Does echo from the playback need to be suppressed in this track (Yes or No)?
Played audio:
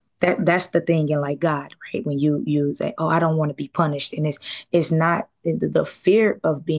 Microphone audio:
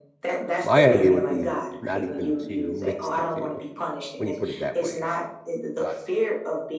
Yes